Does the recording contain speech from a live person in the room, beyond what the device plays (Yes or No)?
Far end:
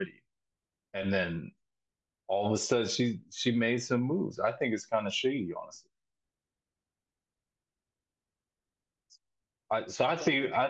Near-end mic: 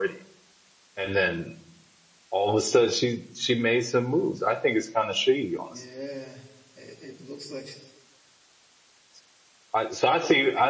Yes